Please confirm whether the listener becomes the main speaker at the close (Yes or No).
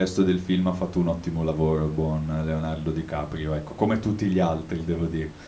No